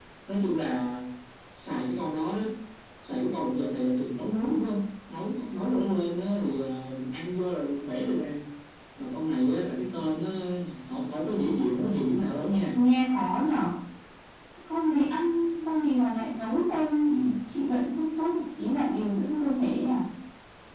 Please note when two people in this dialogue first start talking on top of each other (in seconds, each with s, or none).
none